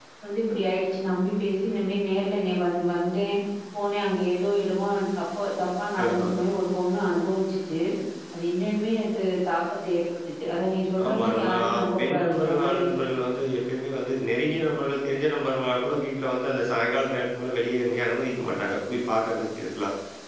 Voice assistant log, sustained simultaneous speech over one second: present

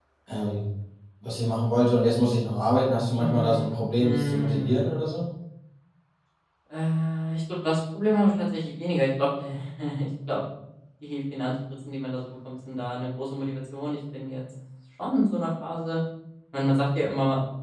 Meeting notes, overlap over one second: present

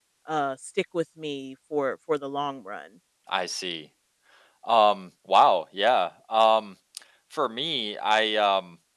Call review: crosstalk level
none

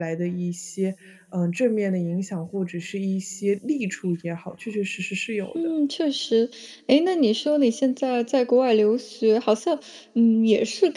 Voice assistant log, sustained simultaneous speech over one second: none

